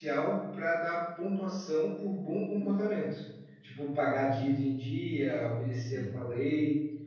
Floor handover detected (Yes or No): No